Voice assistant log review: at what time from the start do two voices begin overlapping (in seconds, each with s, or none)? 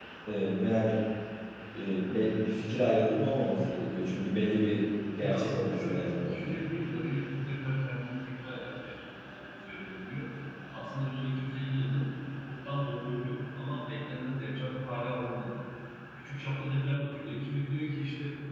5.2 s